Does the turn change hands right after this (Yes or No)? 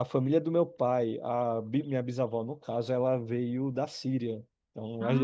No